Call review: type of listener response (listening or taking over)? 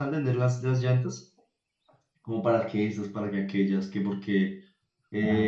listening